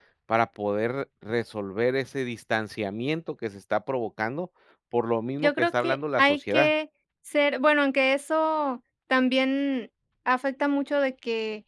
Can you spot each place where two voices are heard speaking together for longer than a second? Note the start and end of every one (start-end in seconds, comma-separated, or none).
5.4-6.7